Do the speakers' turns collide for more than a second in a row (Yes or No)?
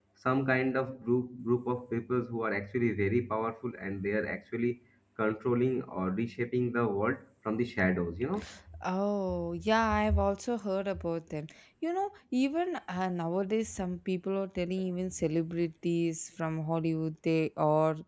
No